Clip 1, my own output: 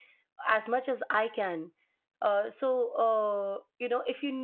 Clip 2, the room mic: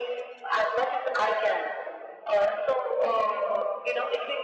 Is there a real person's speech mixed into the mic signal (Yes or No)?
No